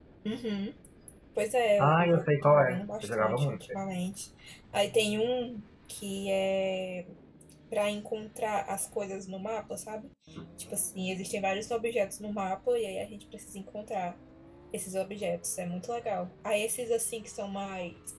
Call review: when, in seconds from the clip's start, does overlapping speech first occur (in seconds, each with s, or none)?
1.8 s